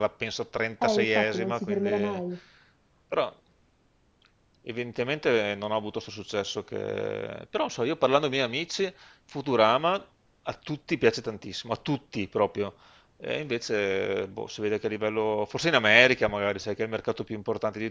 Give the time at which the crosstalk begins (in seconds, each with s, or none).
0.8 s